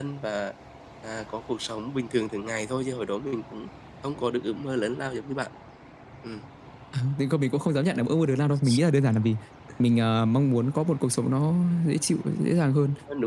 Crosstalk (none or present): none